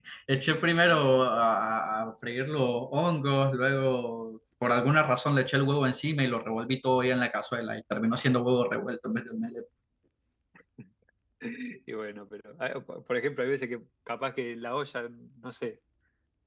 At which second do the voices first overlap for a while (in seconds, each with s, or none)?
none